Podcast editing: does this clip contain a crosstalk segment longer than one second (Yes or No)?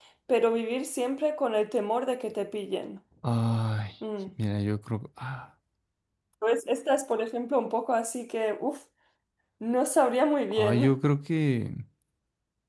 No